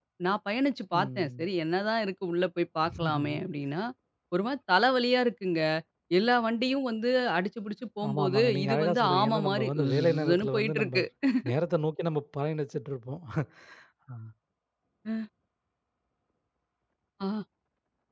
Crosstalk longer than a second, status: present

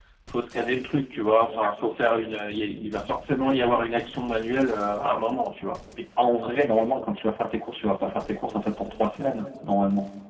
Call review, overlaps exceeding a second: none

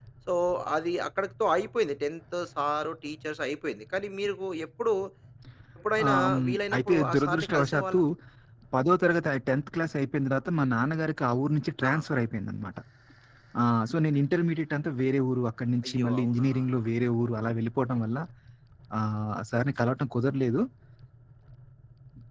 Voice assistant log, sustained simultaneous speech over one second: present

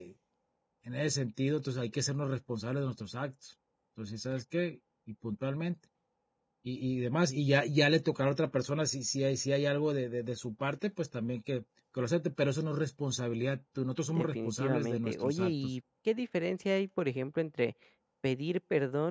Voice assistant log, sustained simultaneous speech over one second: present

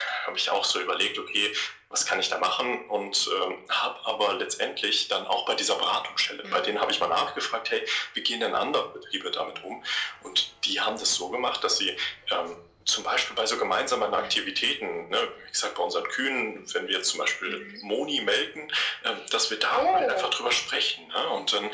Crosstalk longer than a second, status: none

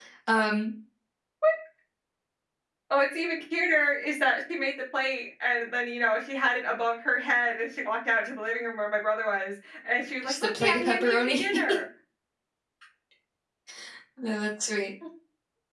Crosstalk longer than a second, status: present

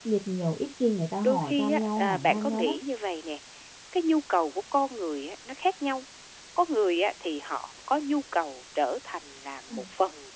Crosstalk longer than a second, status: present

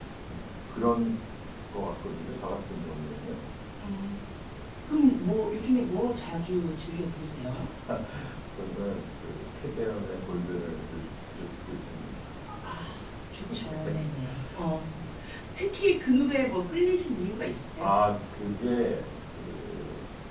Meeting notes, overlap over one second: none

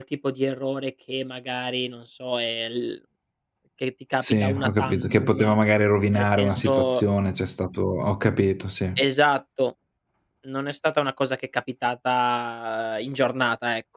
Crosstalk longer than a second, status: present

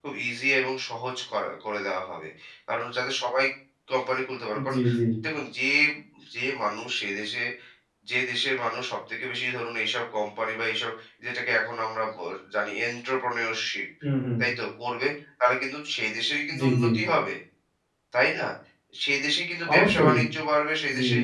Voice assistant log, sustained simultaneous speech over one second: none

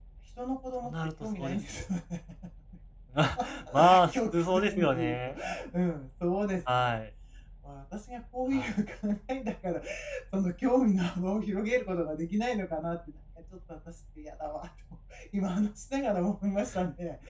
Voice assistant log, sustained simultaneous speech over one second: present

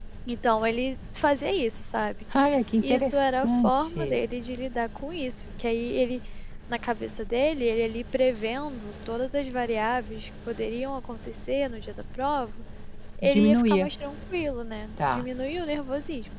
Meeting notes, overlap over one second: present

